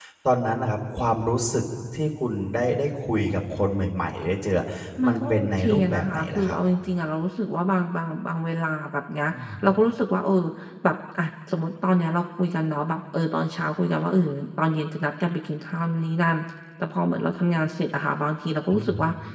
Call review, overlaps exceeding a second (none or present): present